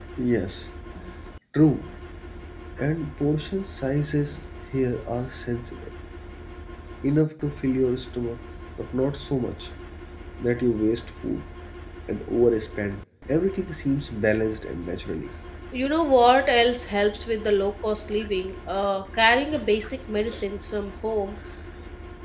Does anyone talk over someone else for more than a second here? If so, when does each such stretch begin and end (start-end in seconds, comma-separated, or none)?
none